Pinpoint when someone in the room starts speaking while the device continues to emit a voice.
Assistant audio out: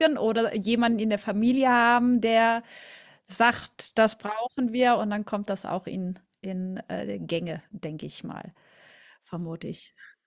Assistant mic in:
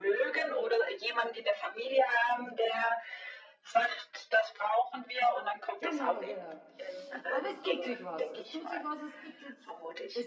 5.8 s

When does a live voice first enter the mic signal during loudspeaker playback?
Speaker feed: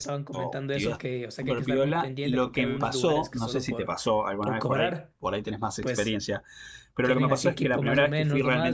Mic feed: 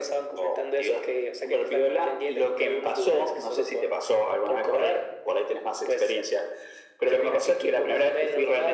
none

